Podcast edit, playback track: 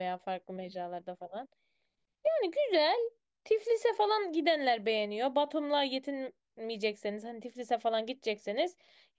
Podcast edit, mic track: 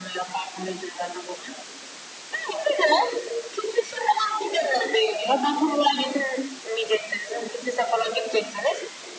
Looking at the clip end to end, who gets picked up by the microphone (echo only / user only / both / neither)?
echo only